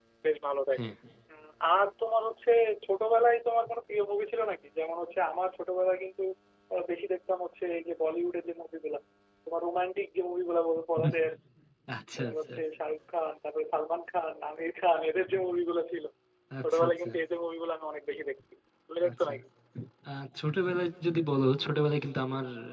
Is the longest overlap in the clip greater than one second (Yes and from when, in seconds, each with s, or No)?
No